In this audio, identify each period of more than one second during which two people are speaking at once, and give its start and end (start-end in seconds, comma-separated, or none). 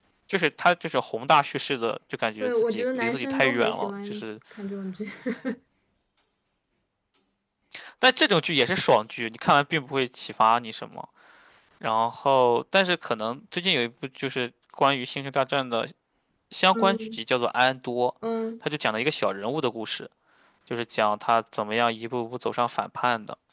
2.4-4.2